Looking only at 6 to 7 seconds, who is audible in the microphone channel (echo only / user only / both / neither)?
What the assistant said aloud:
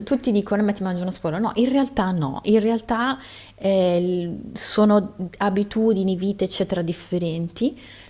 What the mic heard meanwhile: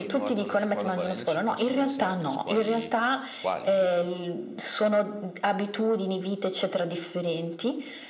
echo only